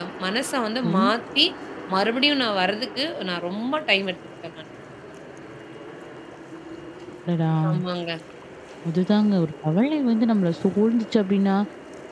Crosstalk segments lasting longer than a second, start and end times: none

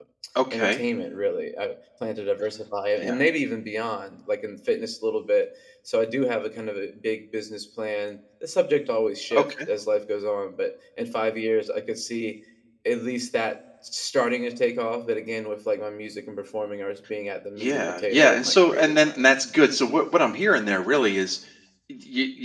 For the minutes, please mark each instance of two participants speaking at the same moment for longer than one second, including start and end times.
17.6-19.3

